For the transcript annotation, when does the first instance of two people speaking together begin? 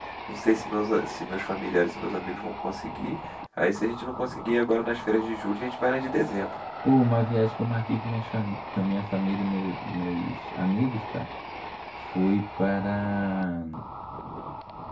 none

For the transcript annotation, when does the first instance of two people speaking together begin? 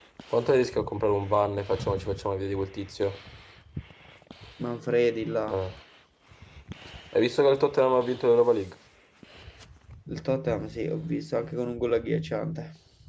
none

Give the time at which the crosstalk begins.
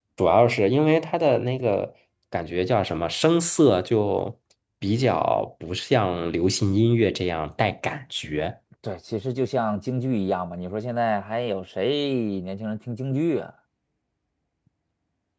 none

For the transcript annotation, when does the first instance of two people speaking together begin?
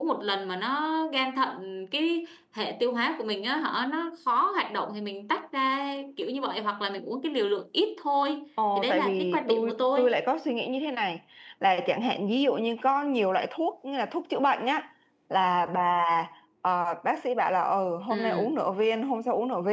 8.8 s

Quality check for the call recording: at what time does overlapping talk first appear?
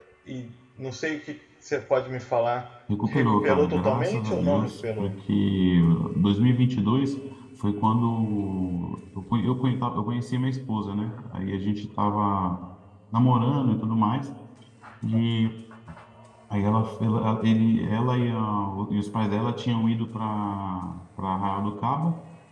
3.0 s

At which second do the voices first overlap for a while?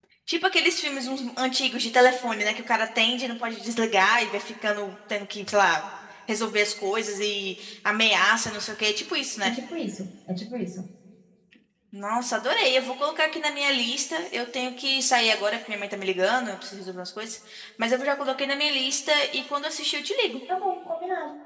none

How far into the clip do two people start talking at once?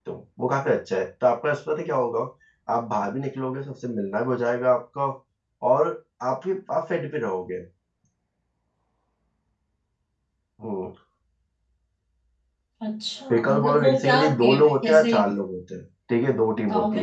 13.3 s

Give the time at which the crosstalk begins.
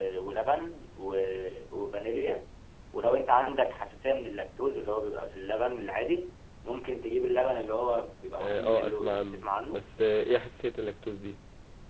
8.4 s

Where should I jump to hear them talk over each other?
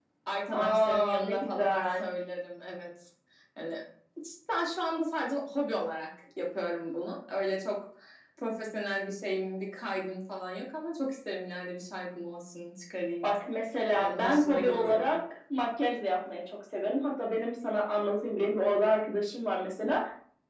0.5 s

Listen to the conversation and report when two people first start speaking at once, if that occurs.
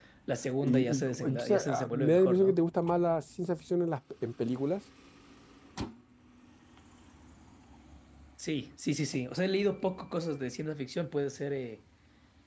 0.6 s

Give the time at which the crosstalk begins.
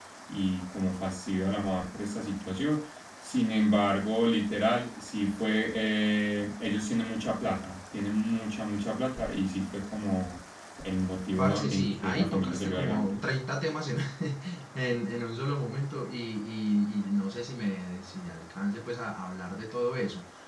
11.4 s

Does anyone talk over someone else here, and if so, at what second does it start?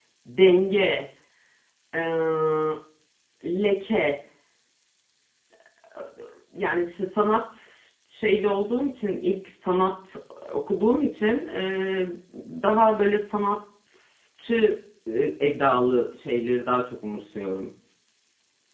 none

